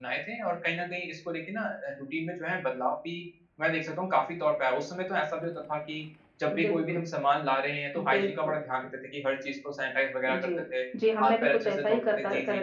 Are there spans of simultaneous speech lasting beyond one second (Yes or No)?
Yes